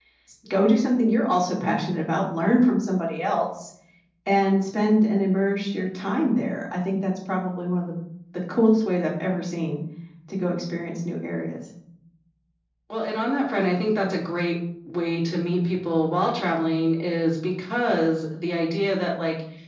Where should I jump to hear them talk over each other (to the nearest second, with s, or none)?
none